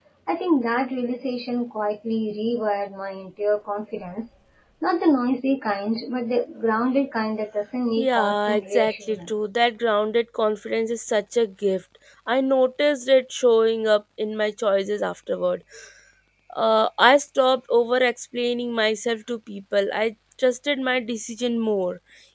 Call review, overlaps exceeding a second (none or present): present